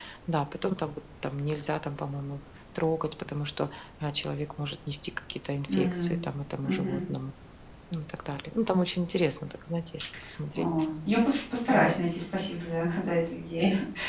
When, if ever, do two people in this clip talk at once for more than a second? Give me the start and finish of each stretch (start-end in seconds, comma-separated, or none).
none